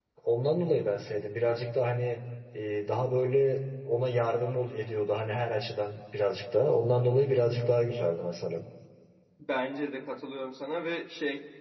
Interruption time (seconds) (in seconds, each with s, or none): none